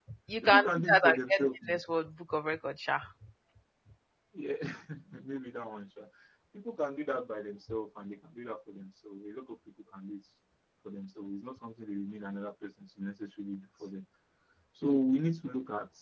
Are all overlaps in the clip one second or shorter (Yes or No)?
No